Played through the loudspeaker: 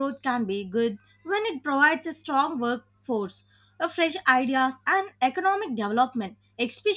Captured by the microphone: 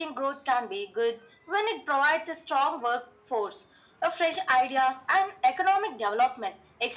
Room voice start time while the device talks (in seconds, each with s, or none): none